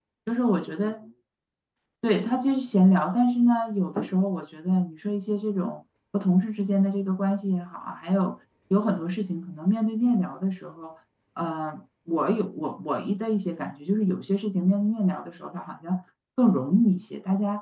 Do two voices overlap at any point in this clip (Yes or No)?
No